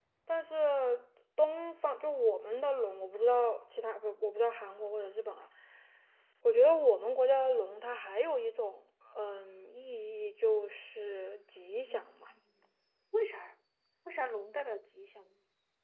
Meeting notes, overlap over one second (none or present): none